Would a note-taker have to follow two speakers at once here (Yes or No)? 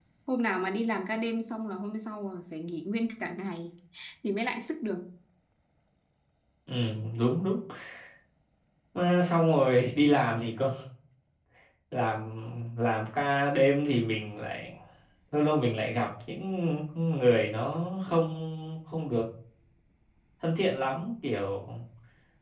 No